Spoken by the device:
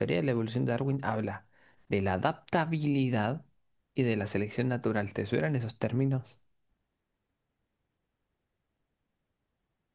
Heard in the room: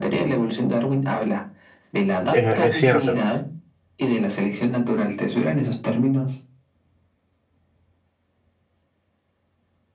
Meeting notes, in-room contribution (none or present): present